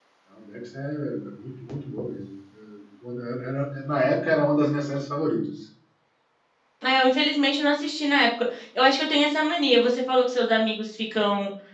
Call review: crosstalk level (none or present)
none